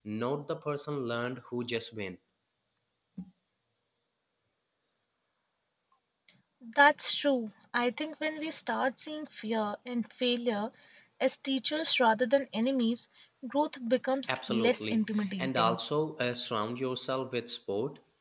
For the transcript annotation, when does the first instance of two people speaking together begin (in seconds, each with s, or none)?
14.3 s